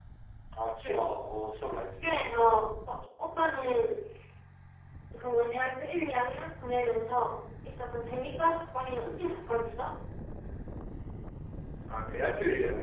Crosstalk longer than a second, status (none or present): none